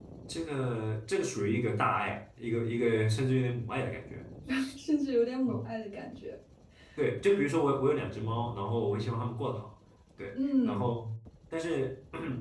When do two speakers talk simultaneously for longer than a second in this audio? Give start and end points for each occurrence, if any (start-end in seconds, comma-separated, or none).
none